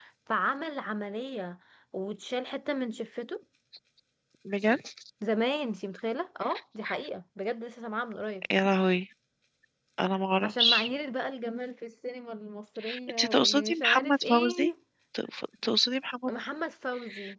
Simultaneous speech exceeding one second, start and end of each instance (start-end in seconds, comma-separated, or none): 13.1-14.7